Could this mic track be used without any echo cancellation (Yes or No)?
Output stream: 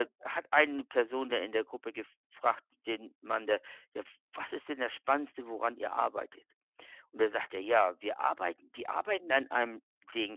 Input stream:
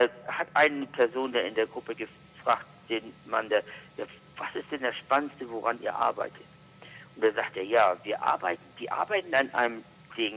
No